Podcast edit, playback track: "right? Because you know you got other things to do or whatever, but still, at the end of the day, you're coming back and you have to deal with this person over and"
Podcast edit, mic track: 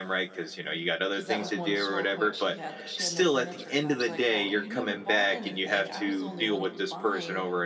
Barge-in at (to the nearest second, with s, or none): 1 s